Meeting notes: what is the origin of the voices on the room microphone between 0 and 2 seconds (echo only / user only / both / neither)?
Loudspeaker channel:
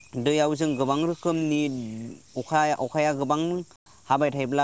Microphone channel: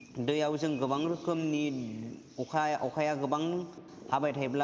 echo only